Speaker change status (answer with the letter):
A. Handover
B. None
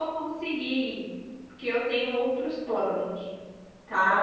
A